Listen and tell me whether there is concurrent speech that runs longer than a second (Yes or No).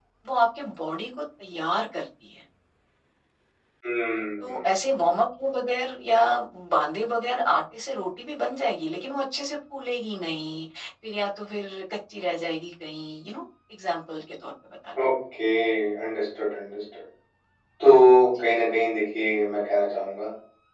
No